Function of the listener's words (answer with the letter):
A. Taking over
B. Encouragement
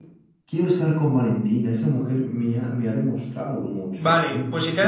A